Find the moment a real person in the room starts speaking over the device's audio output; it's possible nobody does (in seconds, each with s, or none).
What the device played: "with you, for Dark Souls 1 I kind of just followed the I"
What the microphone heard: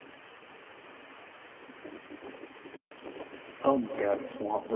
3.6 s